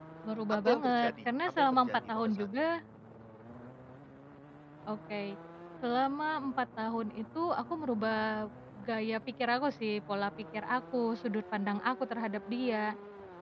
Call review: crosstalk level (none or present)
present